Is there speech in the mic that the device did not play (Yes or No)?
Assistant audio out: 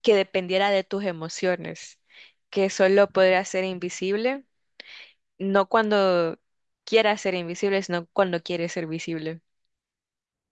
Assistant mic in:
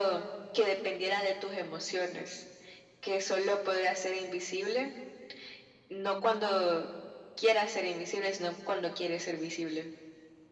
No